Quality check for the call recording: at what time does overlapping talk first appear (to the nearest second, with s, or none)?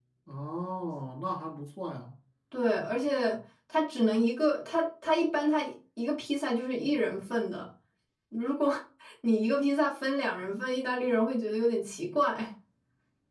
none